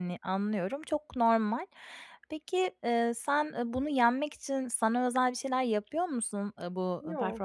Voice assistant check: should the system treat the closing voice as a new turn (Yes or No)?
No